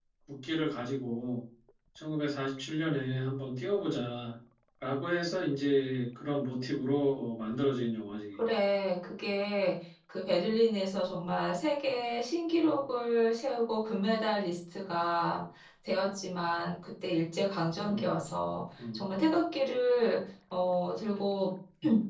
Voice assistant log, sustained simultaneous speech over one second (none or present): none